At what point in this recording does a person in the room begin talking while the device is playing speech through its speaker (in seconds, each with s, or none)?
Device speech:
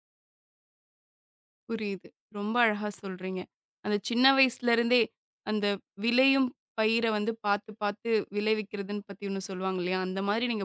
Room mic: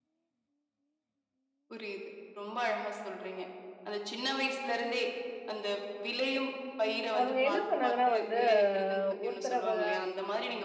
7.2 s